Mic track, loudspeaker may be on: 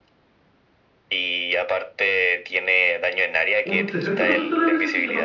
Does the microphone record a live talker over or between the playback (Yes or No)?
Yes